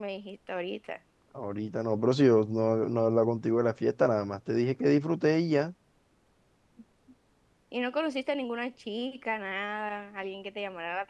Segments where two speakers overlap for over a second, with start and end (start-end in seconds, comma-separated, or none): none